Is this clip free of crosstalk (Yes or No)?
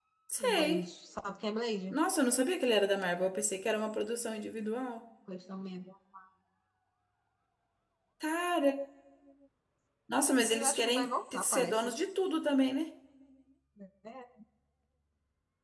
No